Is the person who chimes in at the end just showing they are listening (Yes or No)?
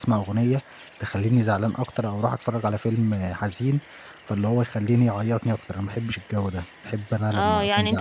No